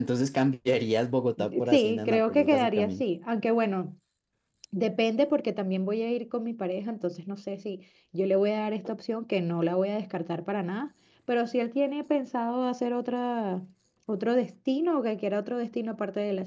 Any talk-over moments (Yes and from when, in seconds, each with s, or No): Yes, from 1.7 s